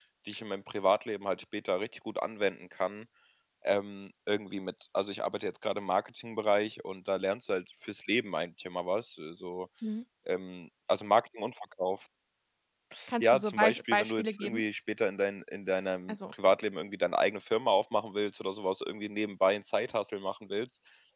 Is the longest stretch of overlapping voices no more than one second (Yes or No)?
No